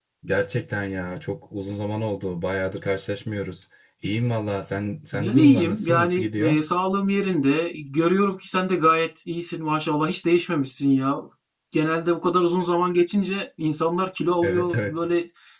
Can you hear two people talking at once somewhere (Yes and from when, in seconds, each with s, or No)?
Yes, from 5.1 s